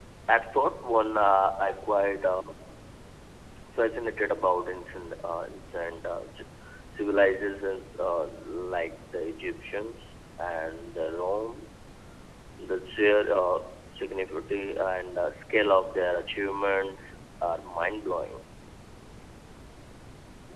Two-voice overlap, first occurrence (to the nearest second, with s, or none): none